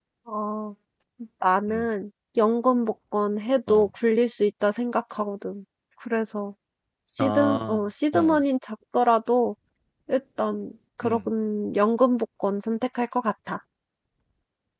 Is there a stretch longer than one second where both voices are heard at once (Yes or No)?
Yes